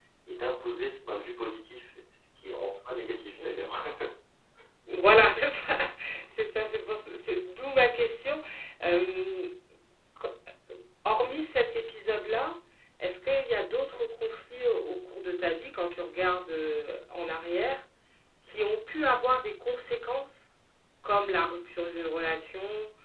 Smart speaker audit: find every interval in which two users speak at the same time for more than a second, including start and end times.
none

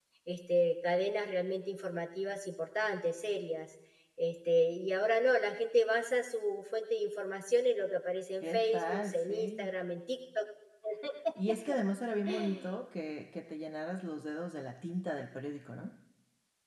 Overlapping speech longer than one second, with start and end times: 8.4-9.7

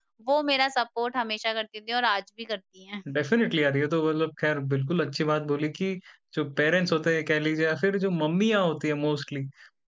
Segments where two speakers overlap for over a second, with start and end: none

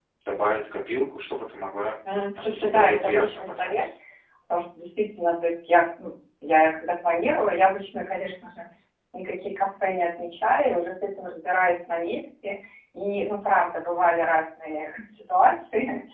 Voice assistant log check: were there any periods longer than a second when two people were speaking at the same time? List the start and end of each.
2.4-3.9

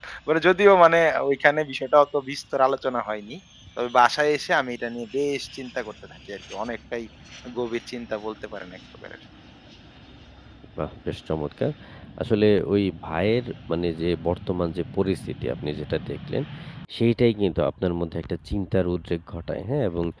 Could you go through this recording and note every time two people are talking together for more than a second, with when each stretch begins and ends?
none

